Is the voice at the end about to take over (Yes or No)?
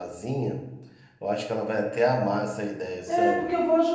Yes